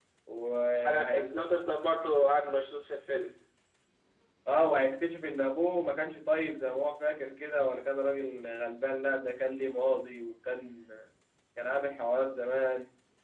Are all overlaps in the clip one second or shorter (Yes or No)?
Yes